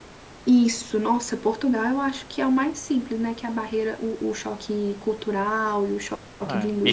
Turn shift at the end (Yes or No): Yes